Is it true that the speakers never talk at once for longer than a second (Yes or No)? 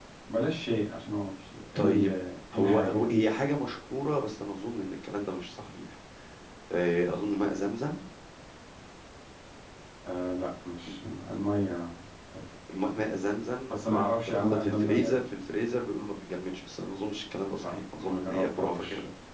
No